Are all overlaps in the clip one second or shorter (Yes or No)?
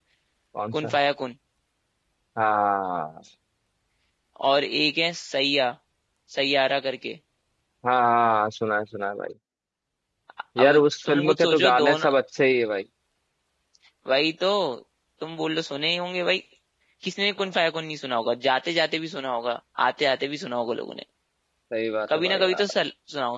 No